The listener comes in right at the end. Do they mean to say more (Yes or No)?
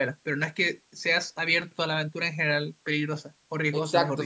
Yes